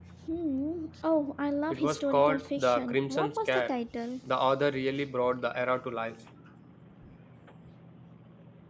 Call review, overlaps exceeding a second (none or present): present